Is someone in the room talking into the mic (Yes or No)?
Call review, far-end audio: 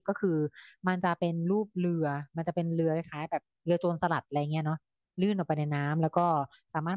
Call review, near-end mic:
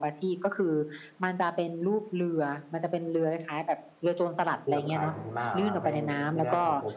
Yes